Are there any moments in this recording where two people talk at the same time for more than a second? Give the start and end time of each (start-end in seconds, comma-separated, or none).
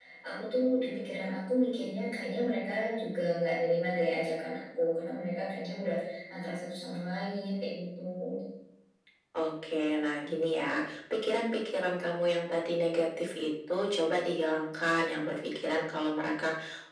none